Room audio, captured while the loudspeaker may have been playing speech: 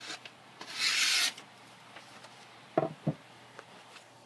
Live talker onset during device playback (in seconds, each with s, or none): none